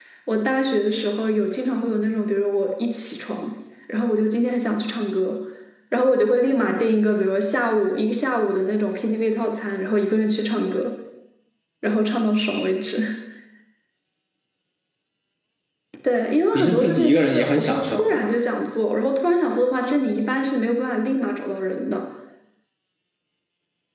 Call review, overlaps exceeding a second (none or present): present